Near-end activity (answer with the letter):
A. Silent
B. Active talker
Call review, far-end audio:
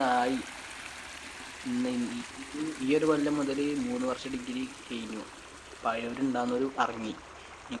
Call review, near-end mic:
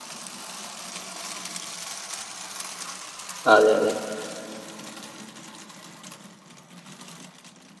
B